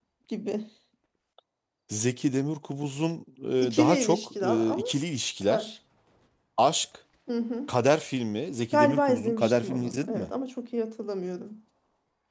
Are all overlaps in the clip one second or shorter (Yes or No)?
No